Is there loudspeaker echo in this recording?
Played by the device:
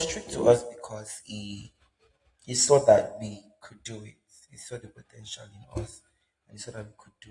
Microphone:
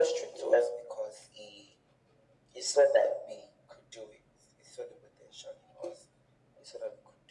Yes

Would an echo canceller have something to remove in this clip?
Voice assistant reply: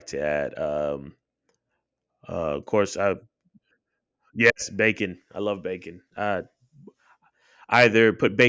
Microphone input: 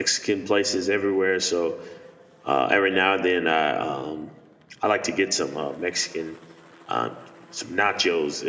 No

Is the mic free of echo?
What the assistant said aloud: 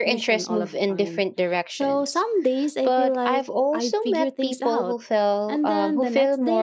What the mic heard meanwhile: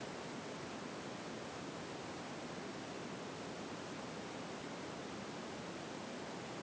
Yes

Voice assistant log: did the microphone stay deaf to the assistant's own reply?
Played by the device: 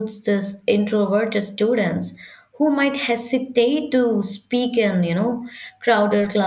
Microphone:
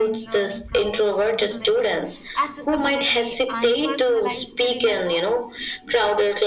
No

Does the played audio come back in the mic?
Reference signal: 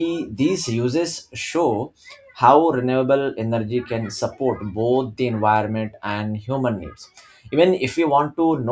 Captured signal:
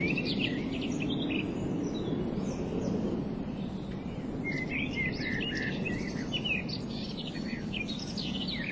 No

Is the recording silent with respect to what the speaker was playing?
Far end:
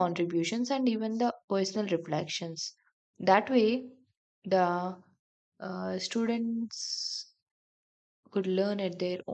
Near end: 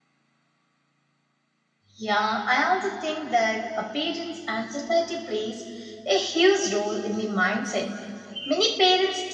Yes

